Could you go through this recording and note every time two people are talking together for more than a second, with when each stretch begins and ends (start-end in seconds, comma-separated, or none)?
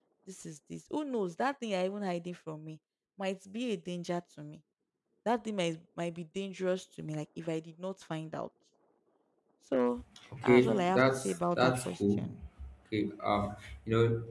10.4-12.2